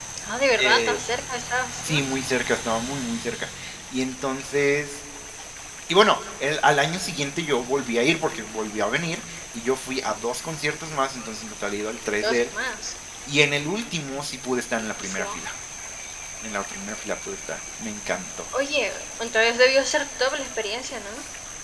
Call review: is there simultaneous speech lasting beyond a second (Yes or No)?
No